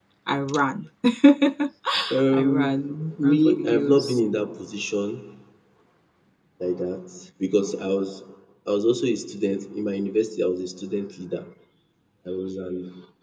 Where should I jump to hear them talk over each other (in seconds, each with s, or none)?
2.3 s